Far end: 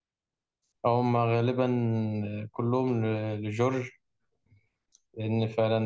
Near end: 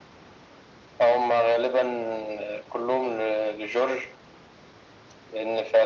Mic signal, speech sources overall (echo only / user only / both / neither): echo only